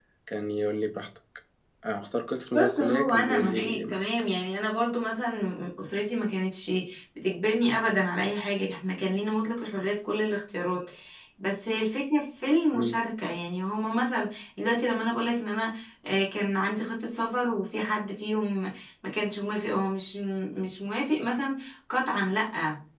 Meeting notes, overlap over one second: present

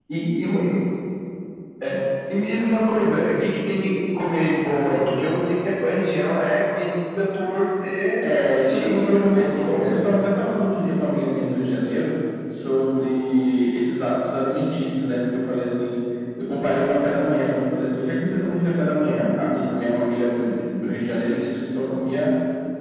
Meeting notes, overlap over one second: present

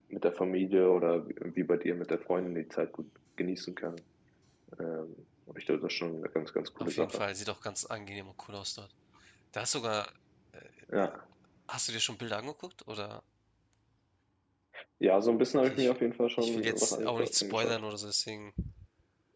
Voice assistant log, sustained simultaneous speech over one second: present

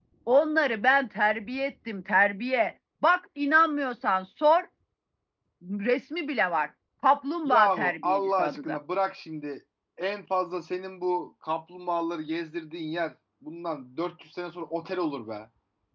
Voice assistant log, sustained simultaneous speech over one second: present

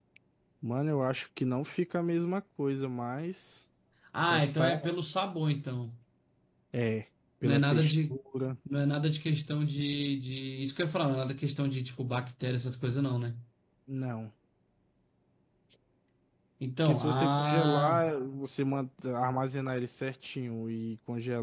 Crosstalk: present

